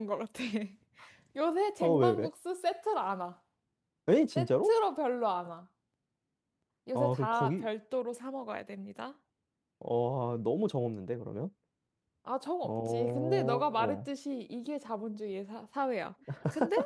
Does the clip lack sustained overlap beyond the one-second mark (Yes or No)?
No